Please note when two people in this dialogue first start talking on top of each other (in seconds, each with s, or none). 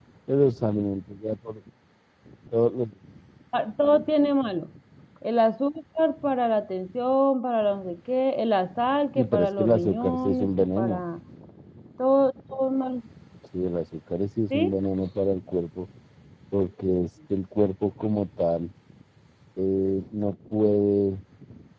9.2 s